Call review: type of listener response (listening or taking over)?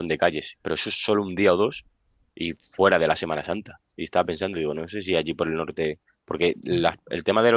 listening